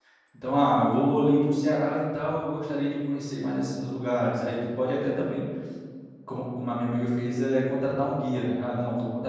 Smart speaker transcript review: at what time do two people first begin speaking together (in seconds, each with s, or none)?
none